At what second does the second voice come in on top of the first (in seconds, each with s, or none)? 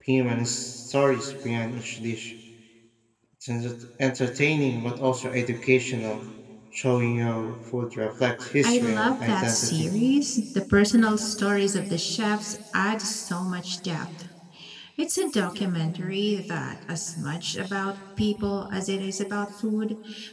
8.6 s